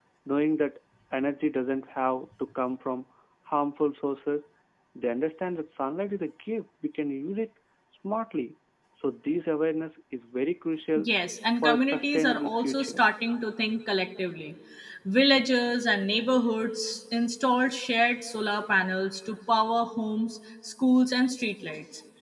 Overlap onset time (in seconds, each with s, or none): 11.6 s